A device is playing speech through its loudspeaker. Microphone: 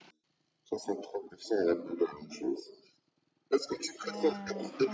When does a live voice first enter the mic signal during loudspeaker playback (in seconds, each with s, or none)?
4.0 s